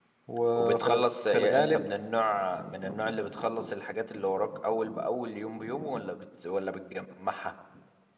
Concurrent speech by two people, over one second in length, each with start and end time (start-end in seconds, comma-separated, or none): 0.6-1.9